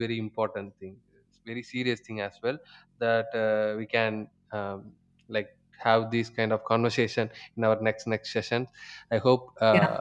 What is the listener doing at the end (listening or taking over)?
listening